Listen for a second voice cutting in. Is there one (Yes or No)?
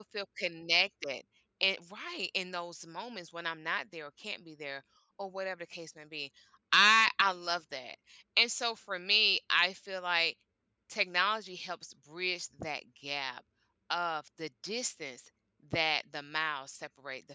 No